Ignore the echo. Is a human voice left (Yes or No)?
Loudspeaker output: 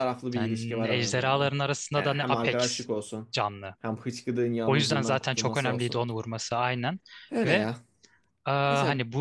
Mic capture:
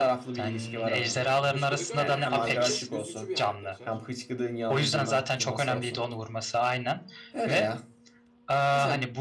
Yes